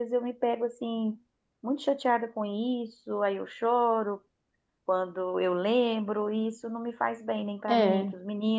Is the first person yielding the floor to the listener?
No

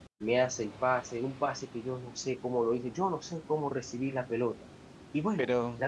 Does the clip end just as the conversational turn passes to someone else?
No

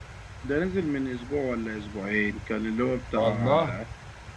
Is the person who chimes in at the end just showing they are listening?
Yes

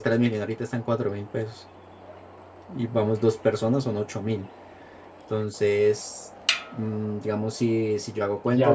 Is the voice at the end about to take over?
Yes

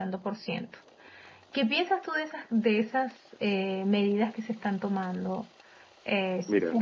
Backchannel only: No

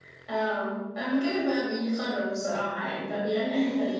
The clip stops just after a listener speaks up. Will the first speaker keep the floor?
No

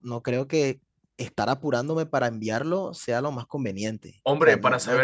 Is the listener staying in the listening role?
No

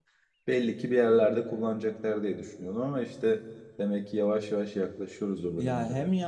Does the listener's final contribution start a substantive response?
Yes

